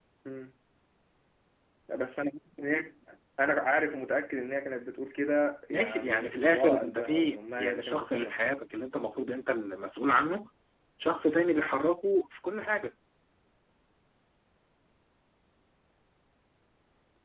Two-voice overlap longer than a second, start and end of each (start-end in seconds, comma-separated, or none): 5.7-8.4